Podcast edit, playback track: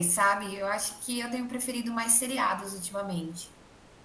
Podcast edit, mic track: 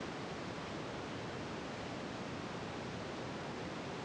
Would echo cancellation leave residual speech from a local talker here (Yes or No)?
No